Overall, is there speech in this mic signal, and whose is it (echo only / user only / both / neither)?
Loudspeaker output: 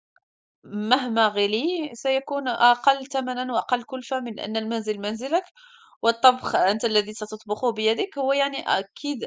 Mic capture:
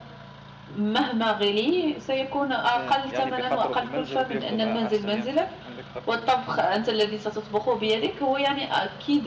both